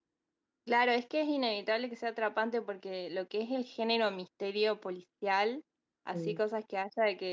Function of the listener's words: listening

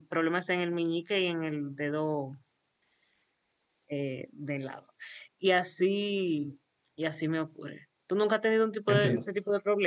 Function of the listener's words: listening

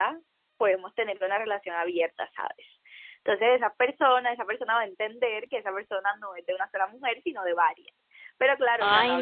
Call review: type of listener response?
listening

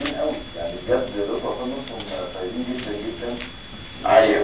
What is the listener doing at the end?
listening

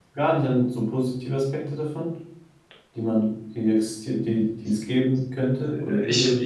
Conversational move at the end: taking over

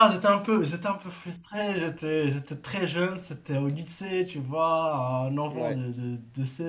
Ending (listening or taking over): listening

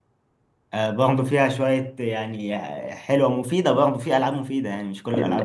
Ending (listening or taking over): taking over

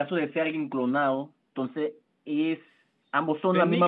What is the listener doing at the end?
taking over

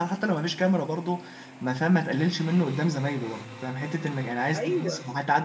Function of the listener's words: listening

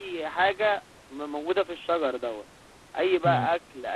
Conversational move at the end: listening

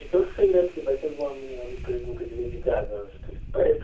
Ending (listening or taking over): taking over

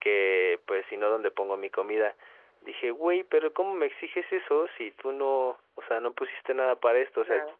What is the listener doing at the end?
listening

